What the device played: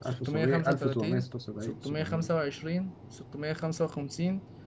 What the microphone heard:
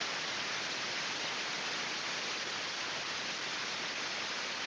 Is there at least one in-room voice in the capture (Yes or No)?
No